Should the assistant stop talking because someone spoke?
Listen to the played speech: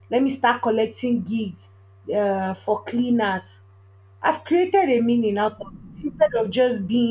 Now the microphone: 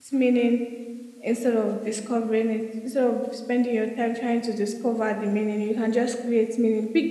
Yes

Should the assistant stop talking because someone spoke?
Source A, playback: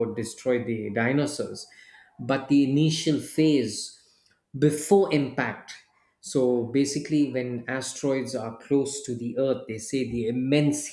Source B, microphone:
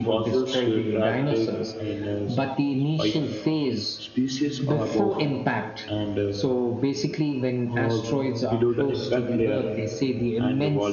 Yes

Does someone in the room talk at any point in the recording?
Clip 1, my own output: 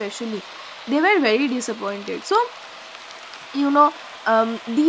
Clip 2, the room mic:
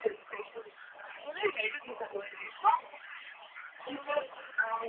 Yes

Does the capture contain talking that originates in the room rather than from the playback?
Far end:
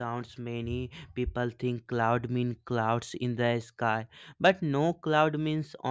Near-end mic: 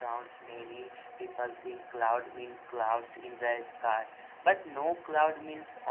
No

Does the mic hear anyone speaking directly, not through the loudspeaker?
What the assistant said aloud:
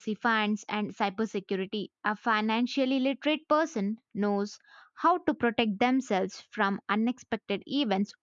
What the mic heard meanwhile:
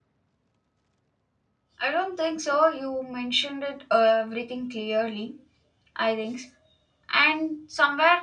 Yes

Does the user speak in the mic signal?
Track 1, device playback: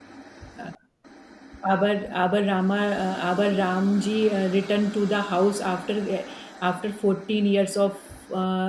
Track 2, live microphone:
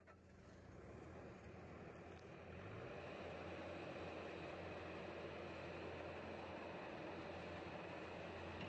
No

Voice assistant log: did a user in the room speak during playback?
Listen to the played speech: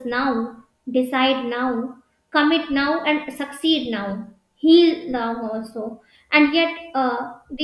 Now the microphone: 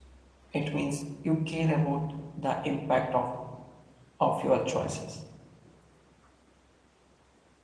Yes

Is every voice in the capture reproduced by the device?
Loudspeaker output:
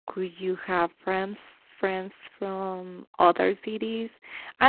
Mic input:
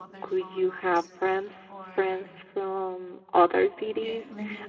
No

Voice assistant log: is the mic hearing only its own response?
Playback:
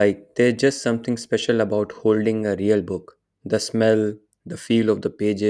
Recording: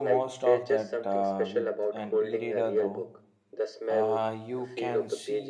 No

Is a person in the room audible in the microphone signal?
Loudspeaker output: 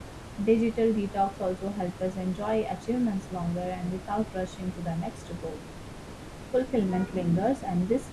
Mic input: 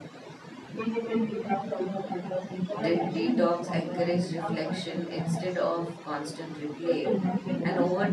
Yes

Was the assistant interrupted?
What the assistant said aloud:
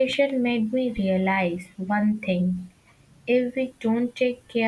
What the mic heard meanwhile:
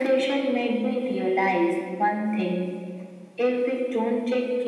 No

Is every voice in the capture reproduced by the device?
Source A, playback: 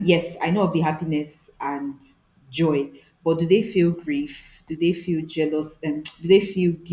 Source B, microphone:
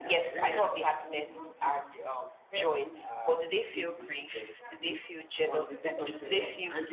No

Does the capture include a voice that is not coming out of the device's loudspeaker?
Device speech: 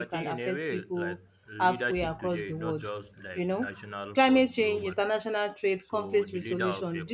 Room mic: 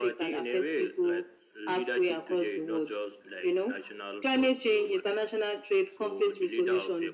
No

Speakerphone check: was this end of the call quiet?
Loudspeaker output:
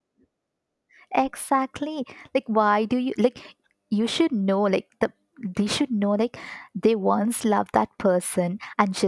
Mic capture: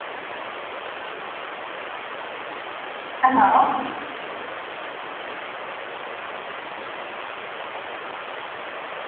No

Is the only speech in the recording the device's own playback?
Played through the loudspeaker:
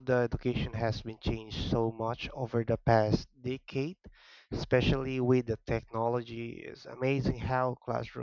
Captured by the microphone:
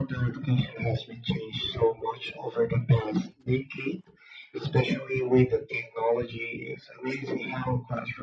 Yes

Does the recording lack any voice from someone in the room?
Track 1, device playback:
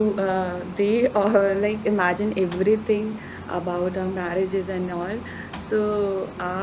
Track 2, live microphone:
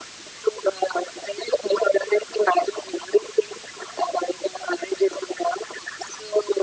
Yes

